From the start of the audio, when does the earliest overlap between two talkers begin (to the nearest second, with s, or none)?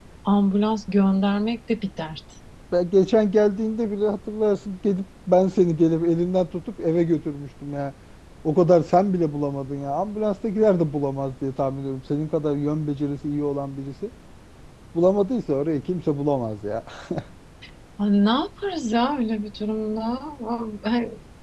none